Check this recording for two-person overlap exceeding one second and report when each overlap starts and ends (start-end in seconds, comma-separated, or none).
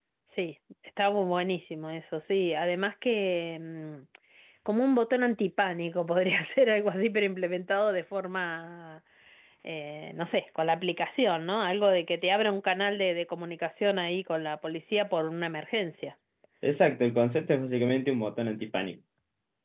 none